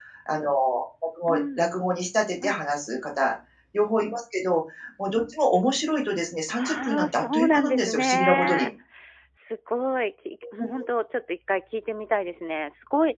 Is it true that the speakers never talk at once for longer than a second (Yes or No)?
No